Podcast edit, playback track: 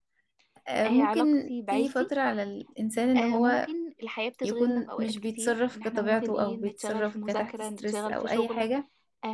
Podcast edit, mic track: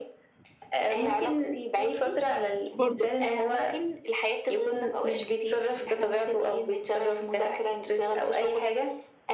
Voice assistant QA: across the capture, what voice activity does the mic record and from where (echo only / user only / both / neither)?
both